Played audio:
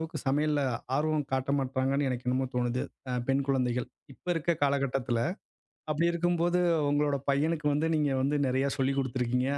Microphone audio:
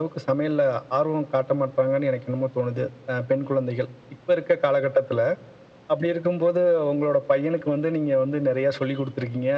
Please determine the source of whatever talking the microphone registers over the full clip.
echo only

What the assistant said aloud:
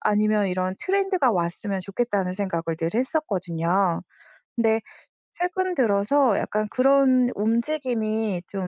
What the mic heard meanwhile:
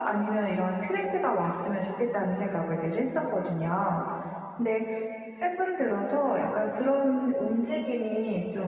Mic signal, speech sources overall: echo only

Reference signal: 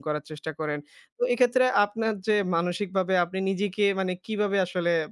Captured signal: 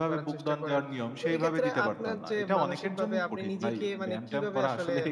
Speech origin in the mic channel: both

